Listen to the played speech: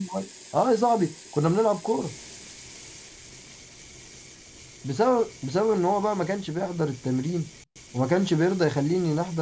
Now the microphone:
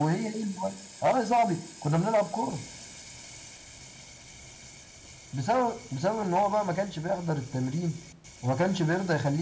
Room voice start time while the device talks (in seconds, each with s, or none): none